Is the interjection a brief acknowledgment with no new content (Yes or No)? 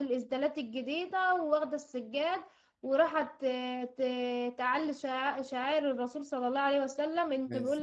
Yes